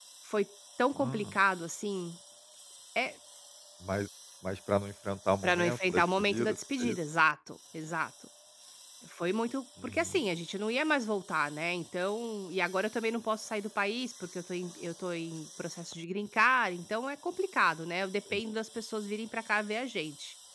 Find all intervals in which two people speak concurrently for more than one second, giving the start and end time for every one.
5.4-7.0

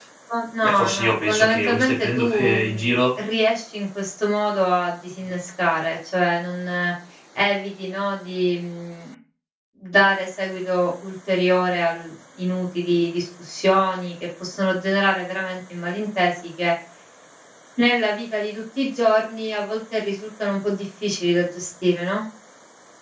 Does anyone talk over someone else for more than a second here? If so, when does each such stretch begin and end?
0.6-3.0

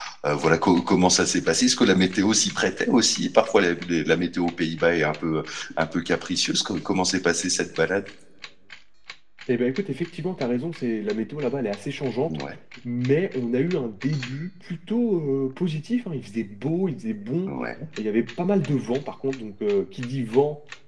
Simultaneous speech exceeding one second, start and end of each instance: none

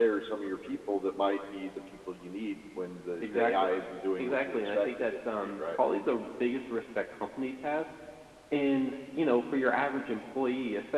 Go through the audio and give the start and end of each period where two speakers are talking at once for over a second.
4.2-5.6

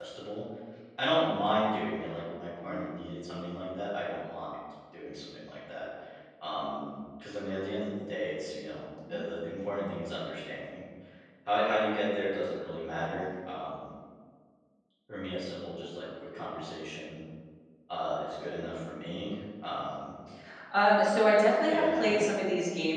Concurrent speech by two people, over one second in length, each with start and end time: none

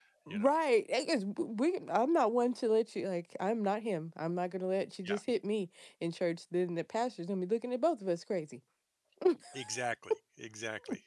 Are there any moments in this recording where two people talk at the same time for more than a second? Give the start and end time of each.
none

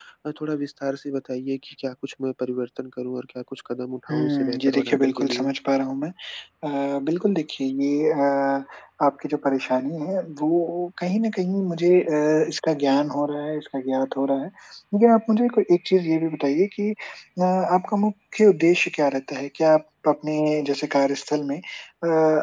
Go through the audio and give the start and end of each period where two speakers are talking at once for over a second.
4.1-5.5

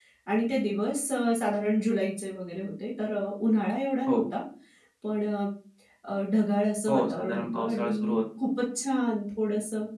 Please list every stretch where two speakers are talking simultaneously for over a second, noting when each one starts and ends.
6.9-8.2

